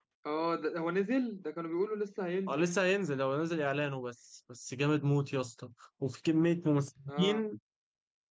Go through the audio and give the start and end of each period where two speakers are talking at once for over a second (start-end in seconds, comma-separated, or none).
none